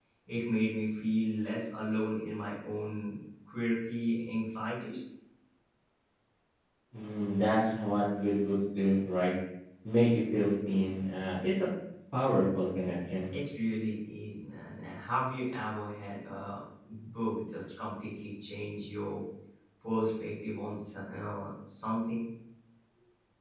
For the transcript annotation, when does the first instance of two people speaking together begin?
none

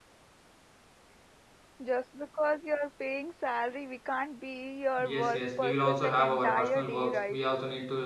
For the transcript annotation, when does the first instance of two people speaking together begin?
5.0 s

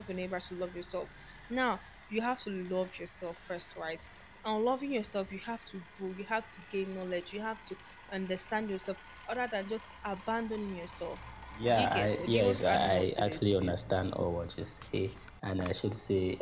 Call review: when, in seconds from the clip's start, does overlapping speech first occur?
11.7 s

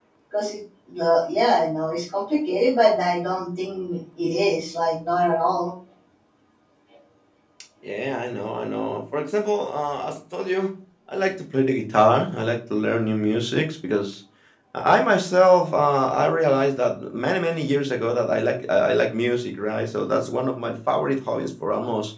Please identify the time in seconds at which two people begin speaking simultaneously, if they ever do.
none

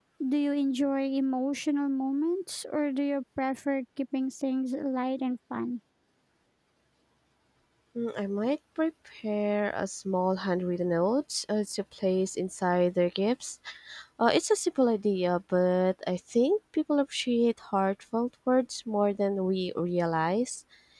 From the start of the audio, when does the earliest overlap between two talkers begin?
none

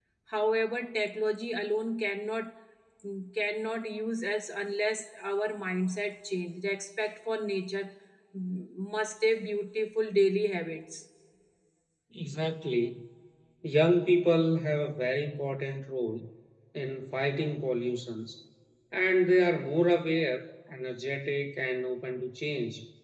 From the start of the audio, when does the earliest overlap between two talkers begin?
none

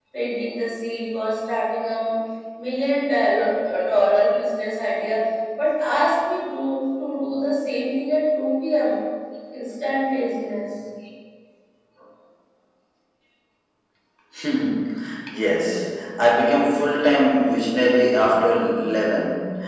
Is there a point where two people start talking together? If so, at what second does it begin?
none

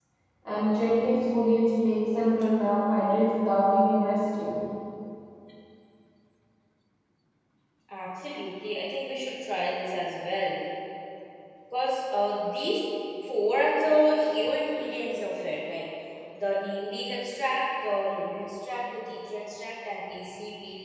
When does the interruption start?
none

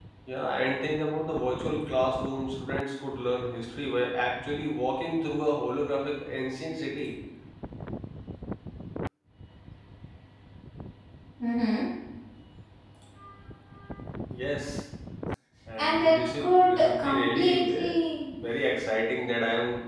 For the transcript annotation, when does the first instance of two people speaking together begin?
15.8 s

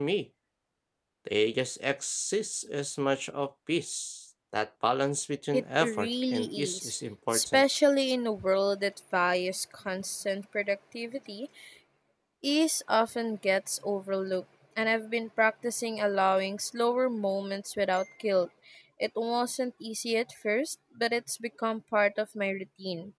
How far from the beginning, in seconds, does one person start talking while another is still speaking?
5.5 s

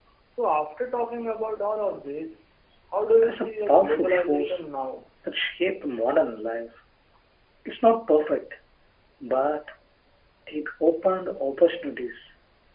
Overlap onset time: 3.2 s

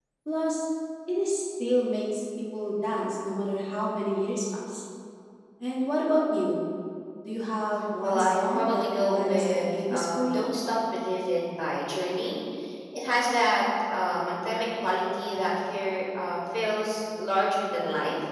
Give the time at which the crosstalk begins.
8.0 s

